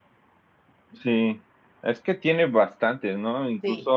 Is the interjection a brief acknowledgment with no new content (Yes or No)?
Yes